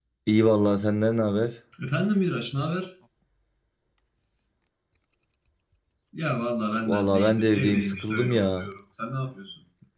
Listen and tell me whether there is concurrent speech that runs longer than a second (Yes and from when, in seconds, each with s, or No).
Yes, from 6.7 s